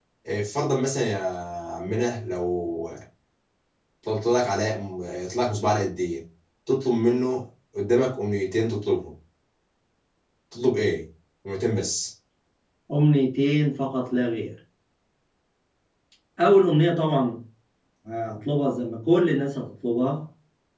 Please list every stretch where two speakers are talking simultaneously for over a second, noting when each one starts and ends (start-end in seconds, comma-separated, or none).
none